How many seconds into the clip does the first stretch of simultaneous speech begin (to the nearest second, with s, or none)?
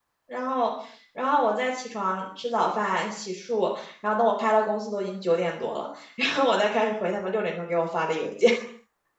none